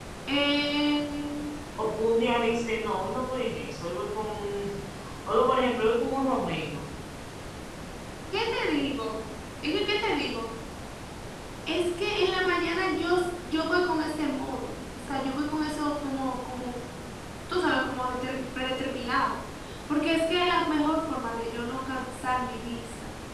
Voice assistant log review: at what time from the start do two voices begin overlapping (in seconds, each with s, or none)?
none